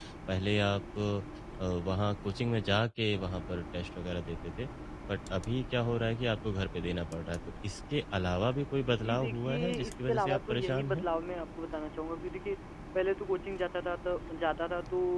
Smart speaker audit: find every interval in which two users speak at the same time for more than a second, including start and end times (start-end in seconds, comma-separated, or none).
9.0-11.0